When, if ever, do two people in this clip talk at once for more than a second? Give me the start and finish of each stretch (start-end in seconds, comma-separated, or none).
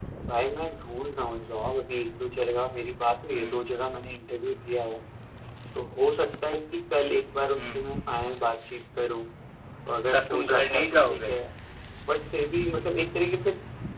10.1-11.3